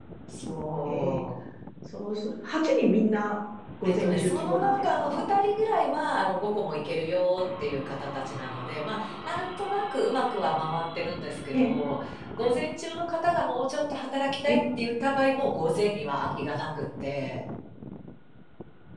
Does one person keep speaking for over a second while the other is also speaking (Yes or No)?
Yes